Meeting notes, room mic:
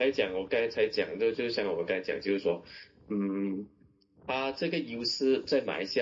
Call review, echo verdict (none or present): present